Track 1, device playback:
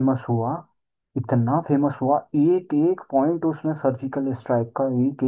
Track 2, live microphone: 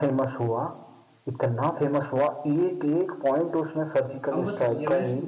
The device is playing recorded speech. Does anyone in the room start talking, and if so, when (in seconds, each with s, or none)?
4.3 s